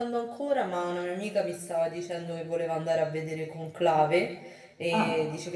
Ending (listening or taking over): listening